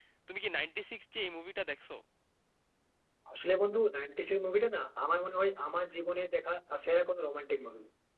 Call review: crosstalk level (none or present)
none